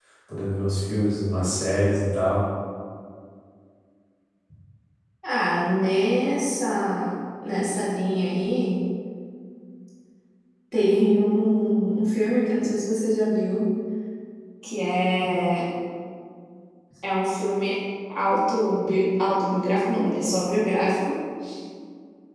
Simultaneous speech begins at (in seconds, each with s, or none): none